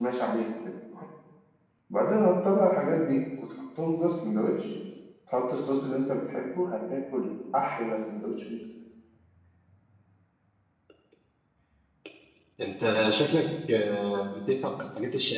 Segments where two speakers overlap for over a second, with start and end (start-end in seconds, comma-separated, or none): none